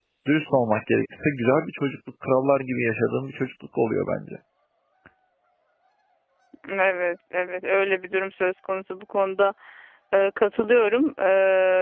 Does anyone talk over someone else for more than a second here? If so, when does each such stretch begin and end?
none

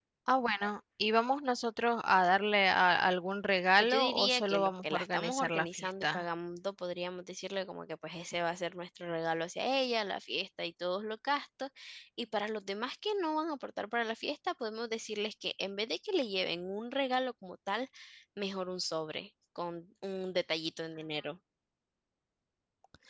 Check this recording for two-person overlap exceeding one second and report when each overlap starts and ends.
3.8-6.2

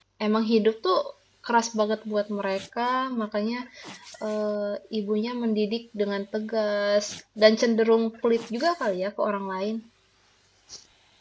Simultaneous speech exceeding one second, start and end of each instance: none

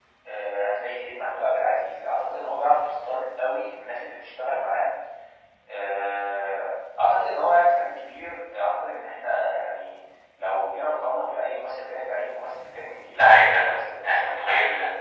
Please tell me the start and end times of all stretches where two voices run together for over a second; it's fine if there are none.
13.1-14.4

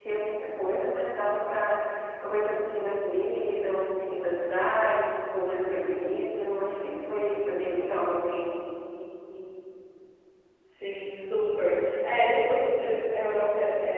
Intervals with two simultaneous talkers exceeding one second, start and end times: none

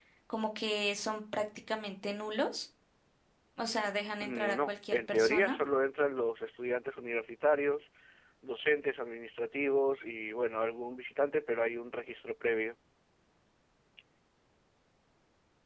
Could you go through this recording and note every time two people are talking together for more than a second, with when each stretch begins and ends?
4.2-5.6

